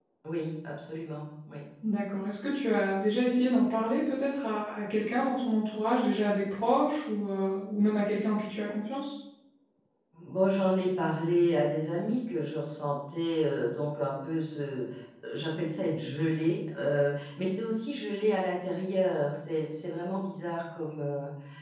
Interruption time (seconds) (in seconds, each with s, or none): none